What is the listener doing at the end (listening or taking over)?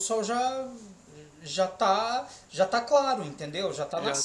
taking over